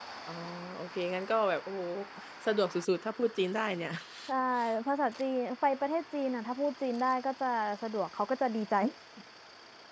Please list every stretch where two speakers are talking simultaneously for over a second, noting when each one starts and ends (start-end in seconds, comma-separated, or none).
none